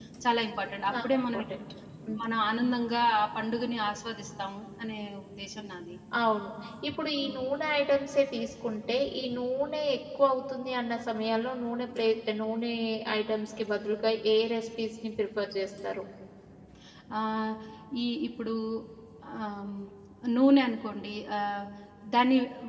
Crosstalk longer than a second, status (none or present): none